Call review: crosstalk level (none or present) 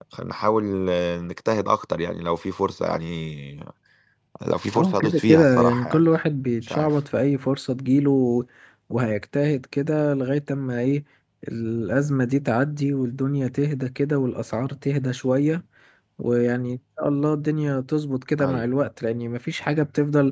present